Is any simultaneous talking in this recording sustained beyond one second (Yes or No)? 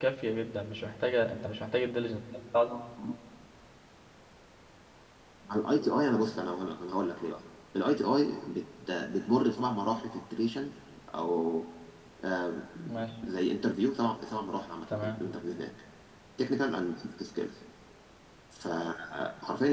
No